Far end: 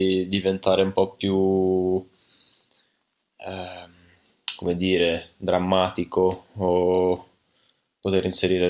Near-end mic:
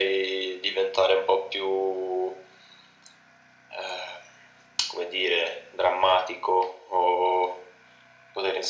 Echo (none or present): present